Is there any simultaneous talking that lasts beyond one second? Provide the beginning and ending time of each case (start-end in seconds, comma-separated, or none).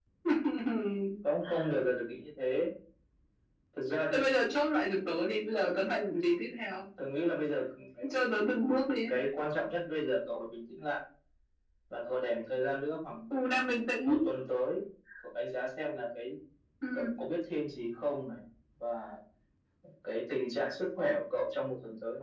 none